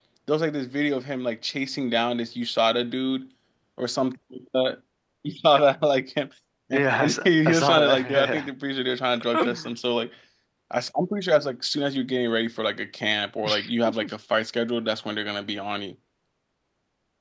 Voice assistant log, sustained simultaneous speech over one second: present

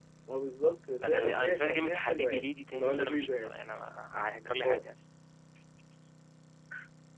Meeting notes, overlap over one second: present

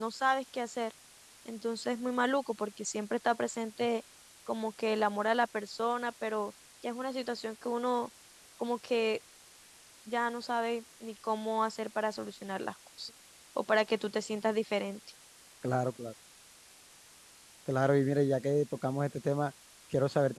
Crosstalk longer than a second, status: none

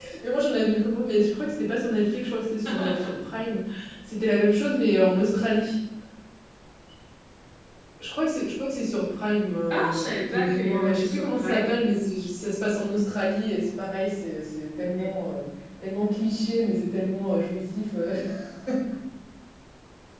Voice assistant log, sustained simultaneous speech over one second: present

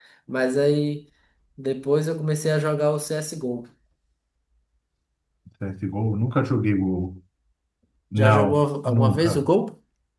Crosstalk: present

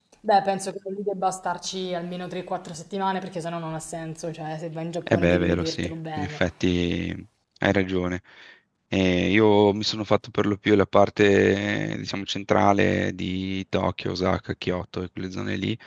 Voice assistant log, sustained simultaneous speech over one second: present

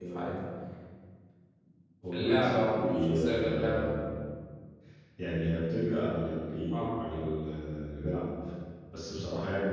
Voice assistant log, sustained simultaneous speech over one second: present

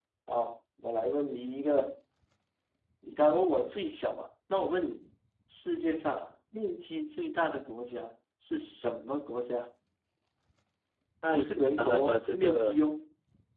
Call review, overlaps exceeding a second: present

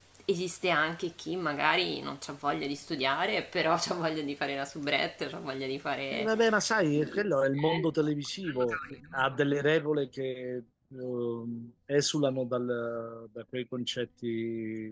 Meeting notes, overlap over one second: present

